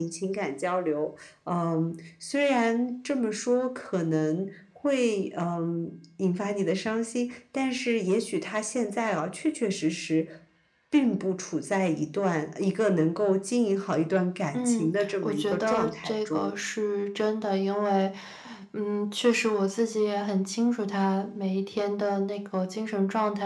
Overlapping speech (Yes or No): Yes